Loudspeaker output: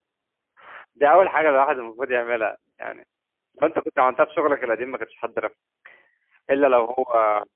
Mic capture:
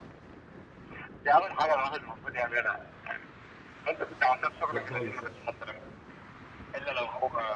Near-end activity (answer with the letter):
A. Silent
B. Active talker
B